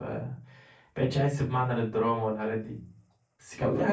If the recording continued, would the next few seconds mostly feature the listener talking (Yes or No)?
No